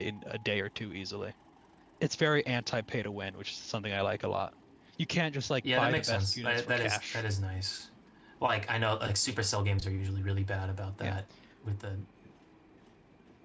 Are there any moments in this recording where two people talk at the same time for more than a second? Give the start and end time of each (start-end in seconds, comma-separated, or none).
5.8-7.2